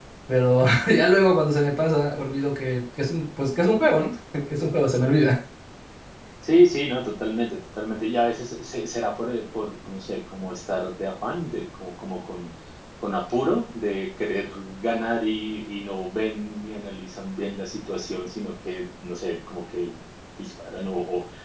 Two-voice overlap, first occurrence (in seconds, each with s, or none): none